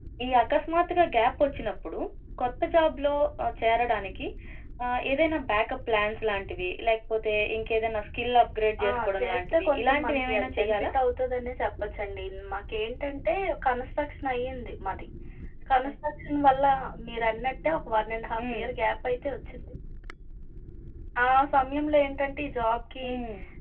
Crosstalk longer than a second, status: present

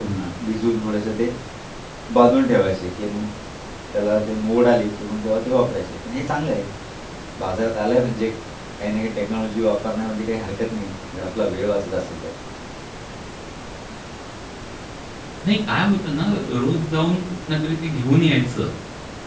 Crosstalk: none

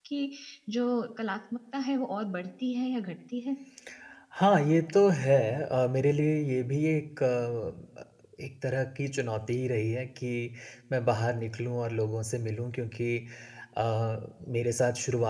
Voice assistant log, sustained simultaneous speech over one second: none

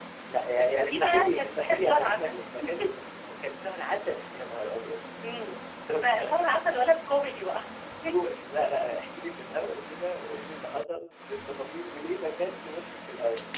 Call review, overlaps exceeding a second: present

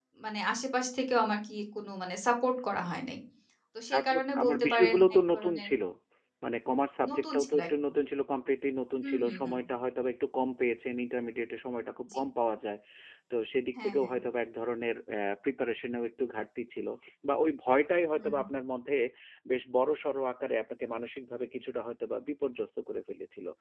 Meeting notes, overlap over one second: present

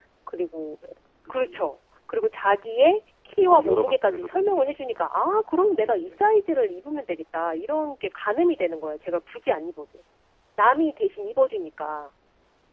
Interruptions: present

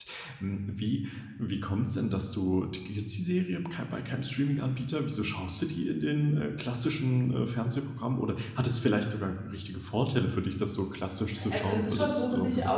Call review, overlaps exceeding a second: present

